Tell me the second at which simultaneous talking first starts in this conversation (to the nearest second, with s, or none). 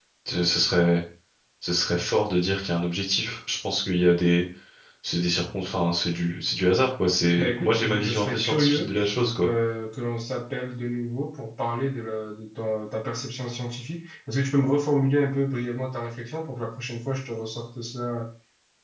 7 s